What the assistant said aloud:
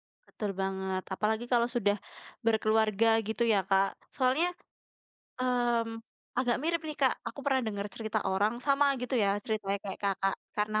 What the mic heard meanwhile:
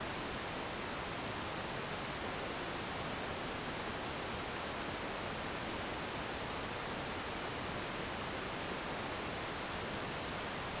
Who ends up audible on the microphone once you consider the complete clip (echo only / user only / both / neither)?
neither